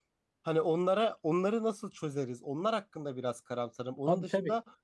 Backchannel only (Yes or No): Yes